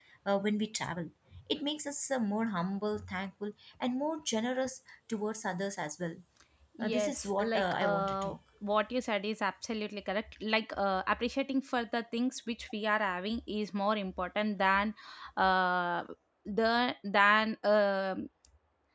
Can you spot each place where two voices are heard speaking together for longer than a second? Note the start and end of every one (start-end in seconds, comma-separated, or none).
6.8-8.3